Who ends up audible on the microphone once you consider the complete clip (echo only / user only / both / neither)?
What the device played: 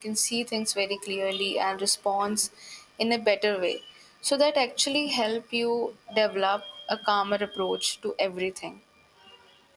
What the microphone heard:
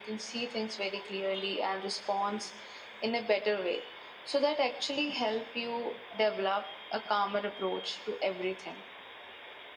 echo only